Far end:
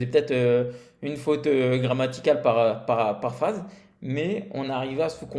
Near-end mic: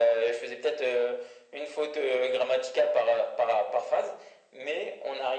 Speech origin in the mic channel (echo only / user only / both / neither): echo only